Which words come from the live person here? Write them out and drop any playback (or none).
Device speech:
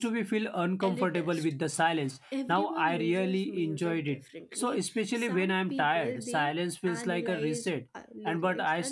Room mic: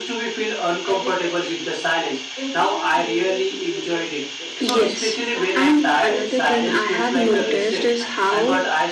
yes and another thing i have noticed is how